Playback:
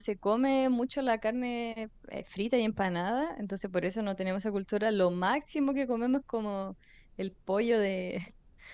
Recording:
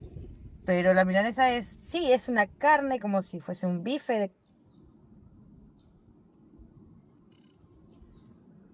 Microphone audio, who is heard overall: user only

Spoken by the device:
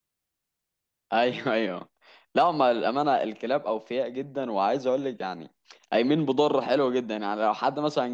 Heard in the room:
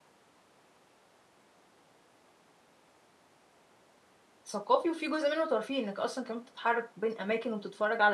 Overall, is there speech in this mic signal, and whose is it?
user only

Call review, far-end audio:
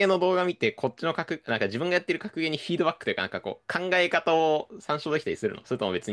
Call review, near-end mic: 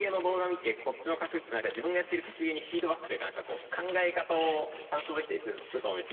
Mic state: echo only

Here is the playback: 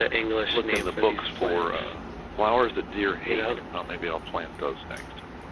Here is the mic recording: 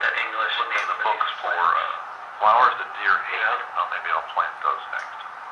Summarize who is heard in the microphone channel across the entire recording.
echo only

